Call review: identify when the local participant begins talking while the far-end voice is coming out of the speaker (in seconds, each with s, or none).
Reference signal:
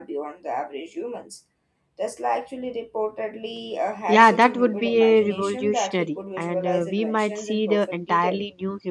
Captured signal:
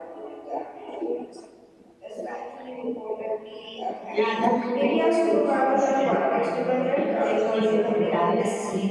4.7 s